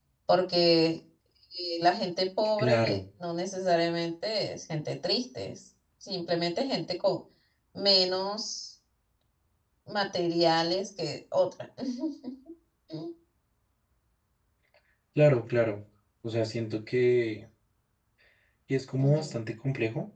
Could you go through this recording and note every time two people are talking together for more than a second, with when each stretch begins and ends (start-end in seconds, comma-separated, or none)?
none